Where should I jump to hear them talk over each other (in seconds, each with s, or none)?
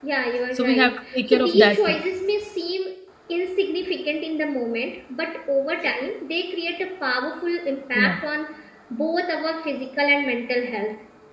0.5 s